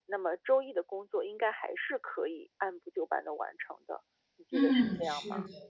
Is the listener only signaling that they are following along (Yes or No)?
No